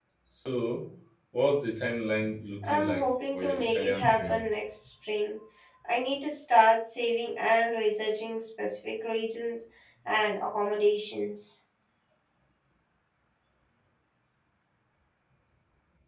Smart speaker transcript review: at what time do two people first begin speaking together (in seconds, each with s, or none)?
2.6 s